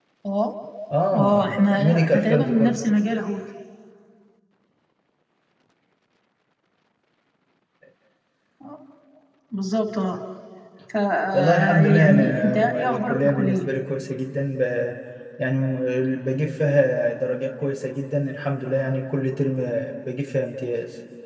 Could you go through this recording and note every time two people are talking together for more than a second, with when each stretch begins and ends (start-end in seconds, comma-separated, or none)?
1.1-2.8, 11.3-13.7